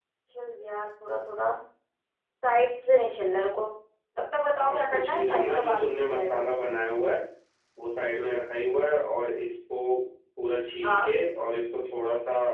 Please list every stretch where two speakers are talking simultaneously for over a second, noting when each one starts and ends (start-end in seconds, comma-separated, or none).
4.6-6.4